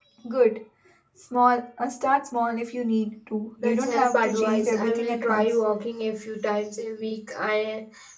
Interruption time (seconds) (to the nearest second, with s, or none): 4 s